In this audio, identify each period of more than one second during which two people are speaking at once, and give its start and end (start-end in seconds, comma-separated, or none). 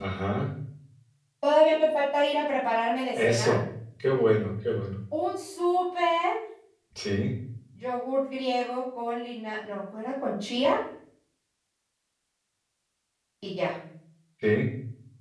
none